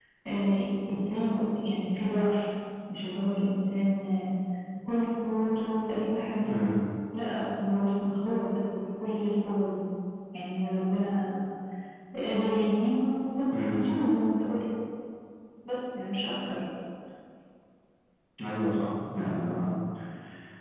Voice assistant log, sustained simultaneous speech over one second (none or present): none